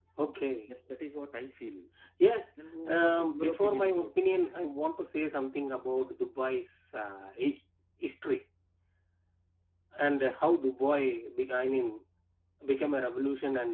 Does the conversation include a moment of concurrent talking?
Yes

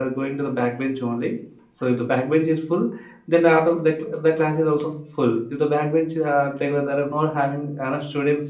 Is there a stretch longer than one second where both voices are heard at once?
No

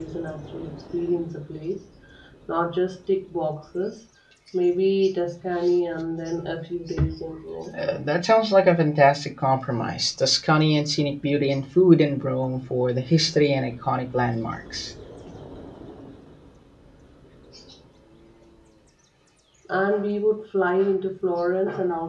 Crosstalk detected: No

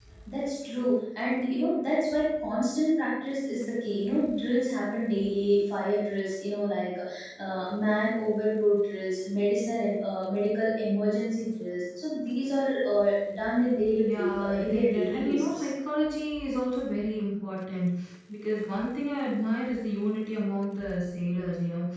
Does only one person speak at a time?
No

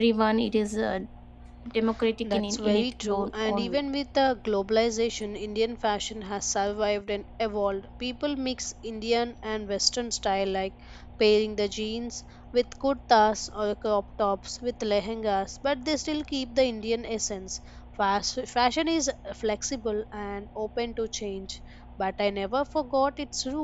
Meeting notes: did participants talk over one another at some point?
Yes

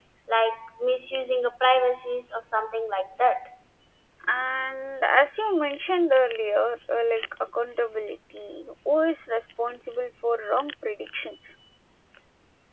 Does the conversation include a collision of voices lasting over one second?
No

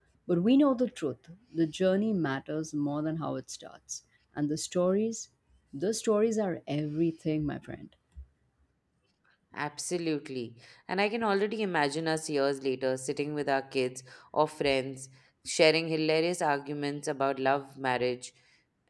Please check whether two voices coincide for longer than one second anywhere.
No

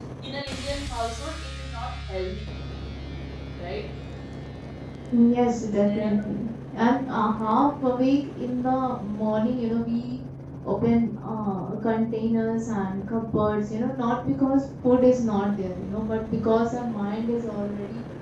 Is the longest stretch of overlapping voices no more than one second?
Yes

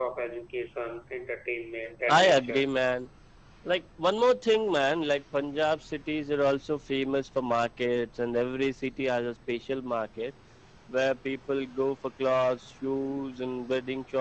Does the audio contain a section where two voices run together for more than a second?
No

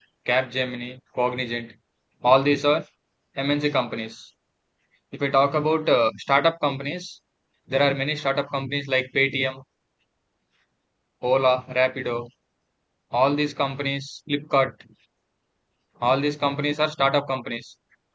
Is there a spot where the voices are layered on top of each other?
No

